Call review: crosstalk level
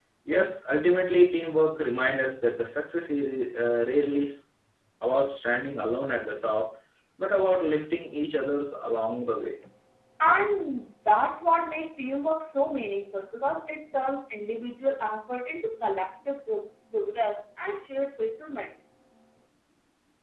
none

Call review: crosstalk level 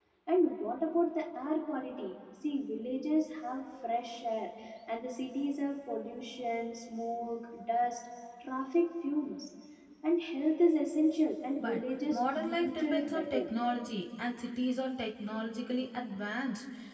present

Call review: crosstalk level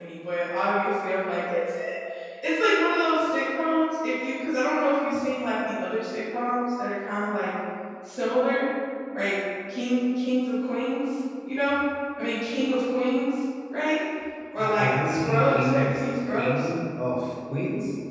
present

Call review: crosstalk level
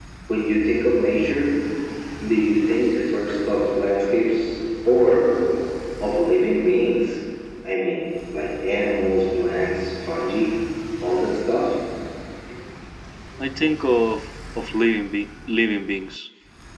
none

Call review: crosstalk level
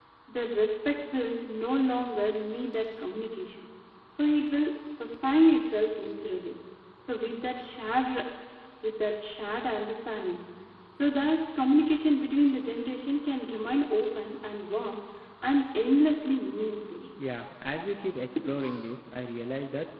none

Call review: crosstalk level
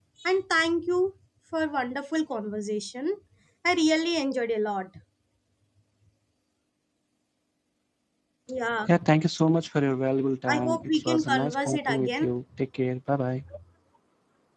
present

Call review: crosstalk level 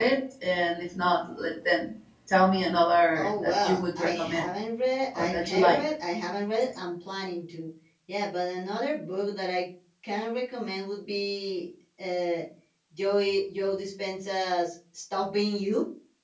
present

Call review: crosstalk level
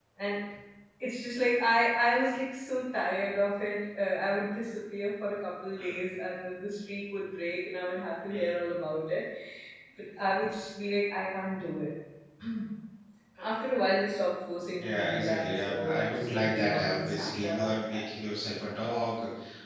present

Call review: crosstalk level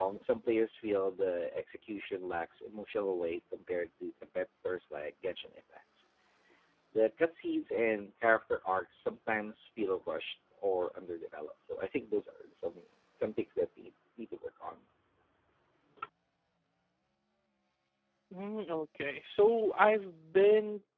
none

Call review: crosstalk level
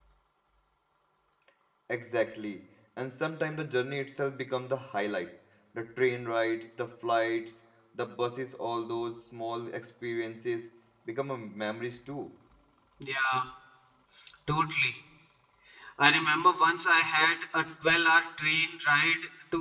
none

